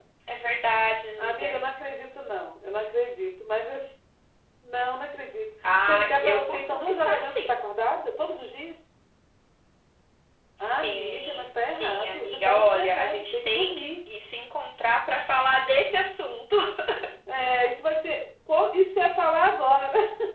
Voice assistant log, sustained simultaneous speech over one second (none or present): present